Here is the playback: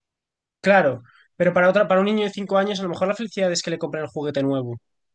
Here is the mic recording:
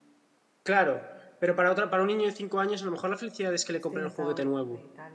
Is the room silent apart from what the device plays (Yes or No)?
No